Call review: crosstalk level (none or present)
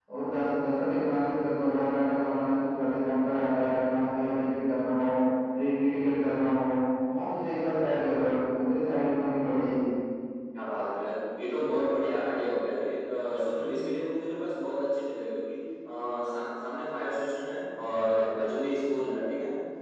none